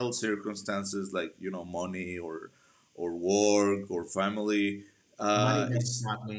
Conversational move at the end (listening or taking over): taking over